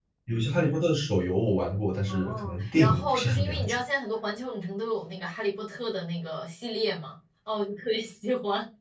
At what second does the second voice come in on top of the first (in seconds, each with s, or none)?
2.1 s